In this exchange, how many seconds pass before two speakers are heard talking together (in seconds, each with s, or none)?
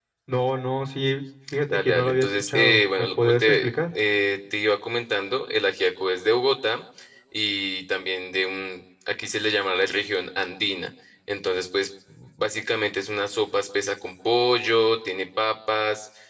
1.5 s